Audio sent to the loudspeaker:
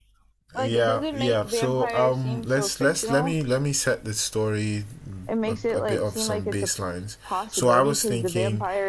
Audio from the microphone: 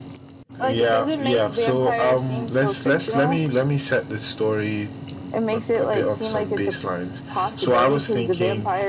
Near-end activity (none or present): none